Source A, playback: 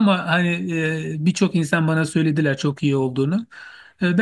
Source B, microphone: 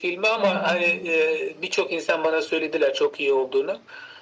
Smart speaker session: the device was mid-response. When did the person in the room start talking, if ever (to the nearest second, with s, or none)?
0 s